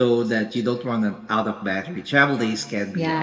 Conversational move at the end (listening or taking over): taking over